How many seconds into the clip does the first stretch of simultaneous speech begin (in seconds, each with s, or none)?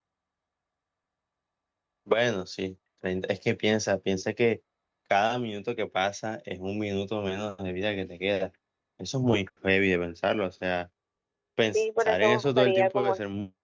11.7 s